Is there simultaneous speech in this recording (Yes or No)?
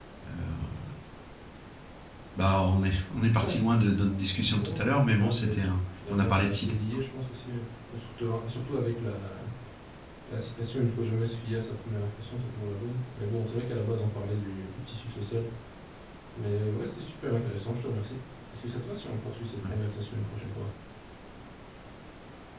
Yes